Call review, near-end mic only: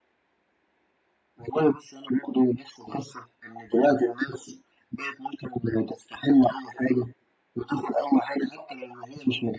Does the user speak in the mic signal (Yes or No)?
No